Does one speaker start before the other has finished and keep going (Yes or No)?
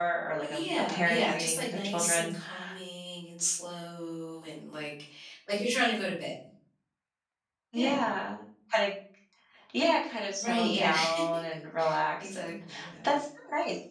Yes